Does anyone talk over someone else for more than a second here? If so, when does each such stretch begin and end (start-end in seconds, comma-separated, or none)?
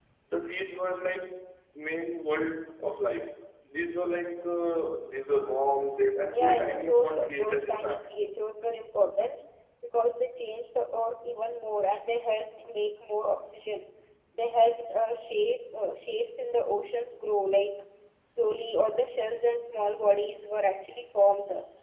6.3-8.1